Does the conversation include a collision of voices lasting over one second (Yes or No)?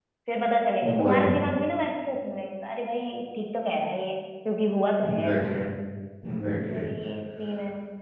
No